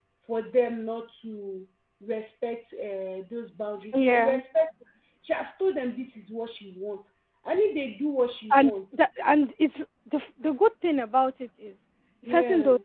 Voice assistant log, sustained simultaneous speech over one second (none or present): none